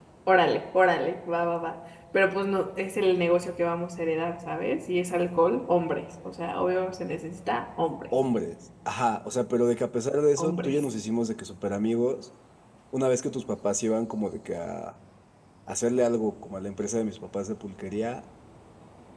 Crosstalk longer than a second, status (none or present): none